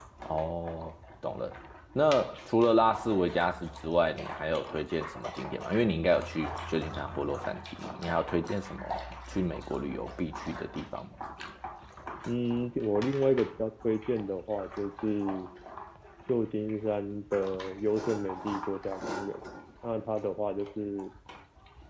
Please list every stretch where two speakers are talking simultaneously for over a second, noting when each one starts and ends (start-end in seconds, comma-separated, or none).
none